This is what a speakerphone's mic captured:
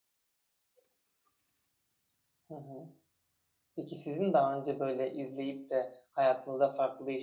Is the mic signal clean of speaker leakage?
Yes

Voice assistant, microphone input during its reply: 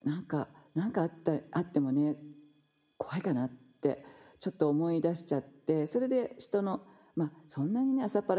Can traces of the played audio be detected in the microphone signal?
No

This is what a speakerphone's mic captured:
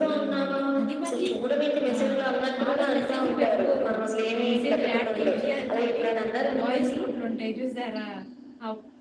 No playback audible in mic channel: No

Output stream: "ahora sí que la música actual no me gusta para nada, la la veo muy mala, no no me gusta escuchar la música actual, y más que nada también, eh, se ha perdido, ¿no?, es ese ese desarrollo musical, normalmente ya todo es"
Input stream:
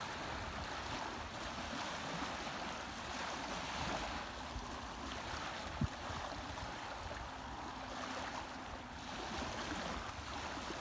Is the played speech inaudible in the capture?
Yes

